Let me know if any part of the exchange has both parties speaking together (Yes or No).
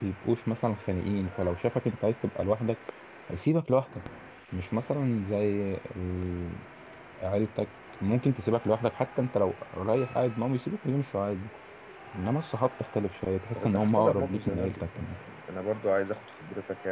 Yes